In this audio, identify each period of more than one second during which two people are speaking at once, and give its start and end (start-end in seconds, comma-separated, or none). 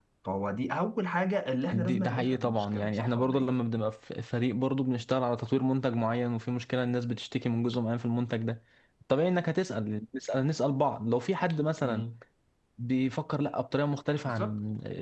1.7-3.5